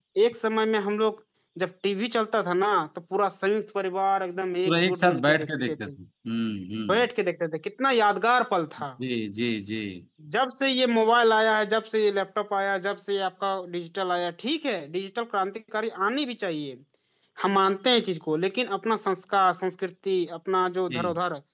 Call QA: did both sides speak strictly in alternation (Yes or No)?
No